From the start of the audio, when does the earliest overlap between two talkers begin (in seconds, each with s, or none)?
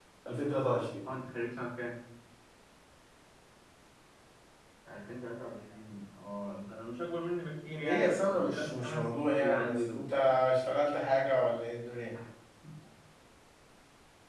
7.8 s